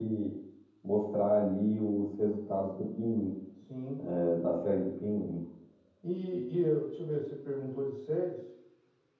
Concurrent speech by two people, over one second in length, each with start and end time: none

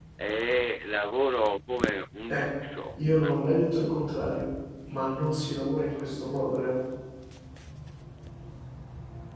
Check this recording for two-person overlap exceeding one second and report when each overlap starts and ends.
none

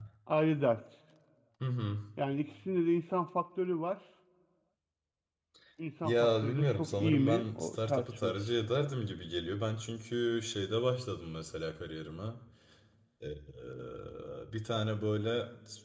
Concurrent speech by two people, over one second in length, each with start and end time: 6.0-8.4

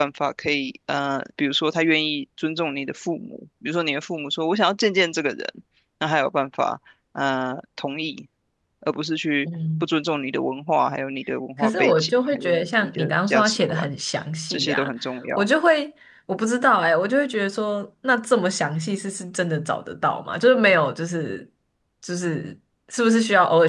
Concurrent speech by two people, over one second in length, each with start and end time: 11.6-13.9

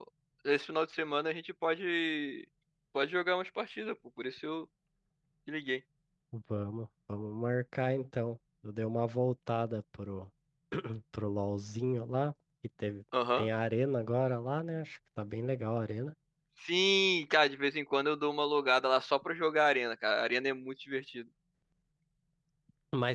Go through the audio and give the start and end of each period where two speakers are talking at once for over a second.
none

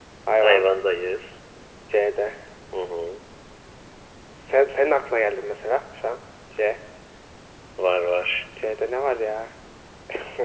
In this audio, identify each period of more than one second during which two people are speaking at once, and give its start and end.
none

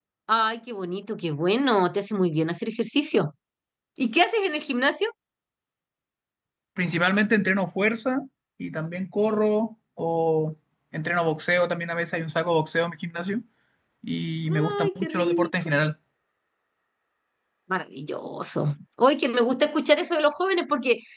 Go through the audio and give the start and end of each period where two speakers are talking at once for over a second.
14.5-15.7

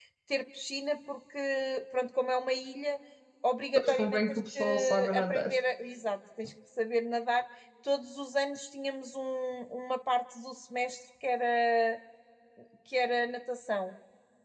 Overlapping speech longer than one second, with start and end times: 3.8-5.5

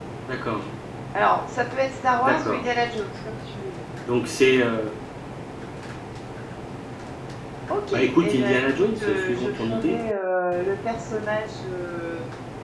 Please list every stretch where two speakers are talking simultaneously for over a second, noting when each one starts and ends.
7.9-10.0

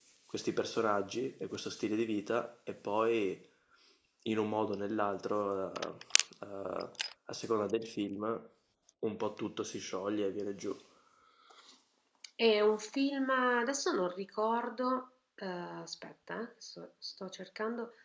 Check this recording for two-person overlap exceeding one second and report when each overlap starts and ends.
none

